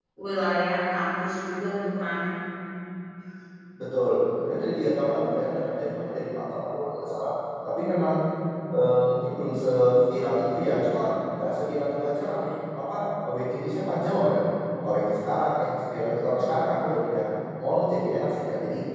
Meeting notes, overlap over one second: none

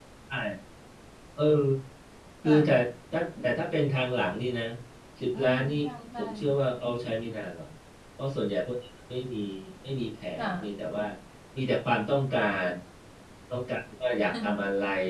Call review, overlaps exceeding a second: none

